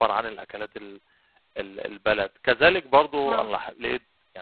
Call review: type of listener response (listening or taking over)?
listening